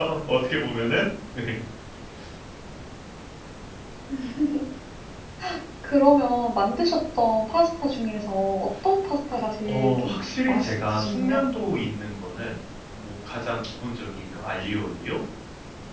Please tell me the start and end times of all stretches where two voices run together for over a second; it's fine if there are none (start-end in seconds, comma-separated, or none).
9.6-11.4